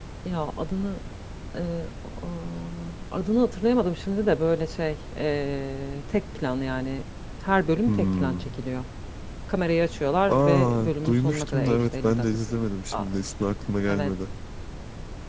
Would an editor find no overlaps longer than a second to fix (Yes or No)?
No